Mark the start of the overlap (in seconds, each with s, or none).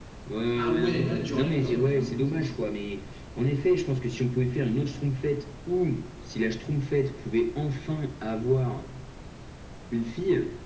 0.6 s